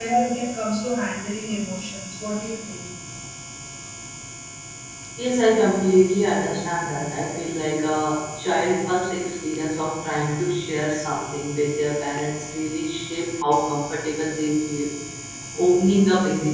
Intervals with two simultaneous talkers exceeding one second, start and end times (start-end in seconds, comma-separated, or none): none